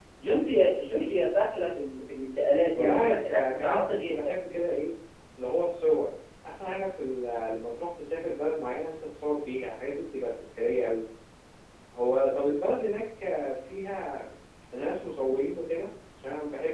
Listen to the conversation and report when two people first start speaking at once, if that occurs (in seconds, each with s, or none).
2.8 s